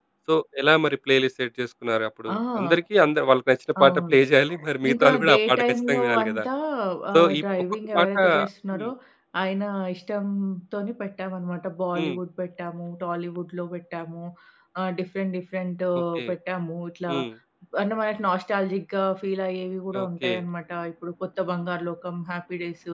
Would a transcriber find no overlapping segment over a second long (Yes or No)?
No